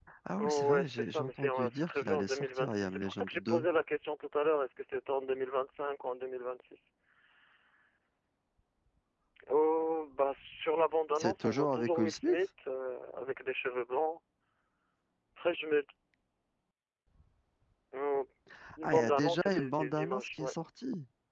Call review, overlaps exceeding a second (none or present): present